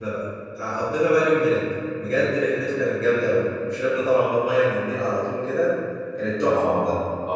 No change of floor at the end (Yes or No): No